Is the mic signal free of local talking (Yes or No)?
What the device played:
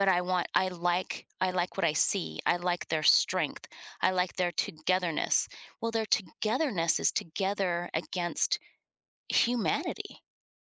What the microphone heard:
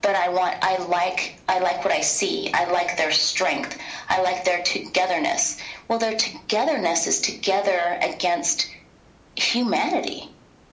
Yes